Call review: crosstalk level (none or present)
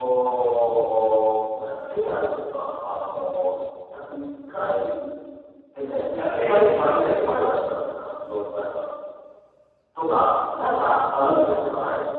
present